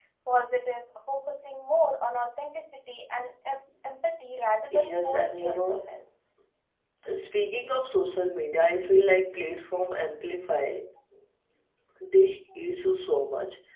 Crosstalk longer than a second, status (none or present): present